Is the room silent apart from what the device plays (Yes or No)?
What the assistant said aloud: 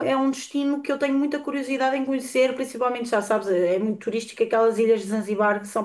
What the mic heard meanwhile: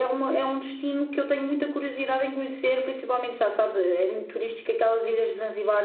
Yes